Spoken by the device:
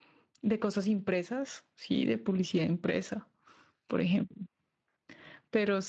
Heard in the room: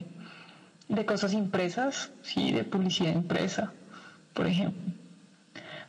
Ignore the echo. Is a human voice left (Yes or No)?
No